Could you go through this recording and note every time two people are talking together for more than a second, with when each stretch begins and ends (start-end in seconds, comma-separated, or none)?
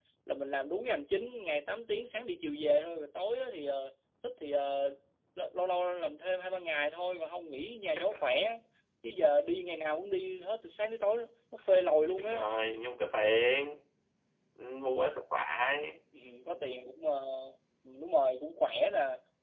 none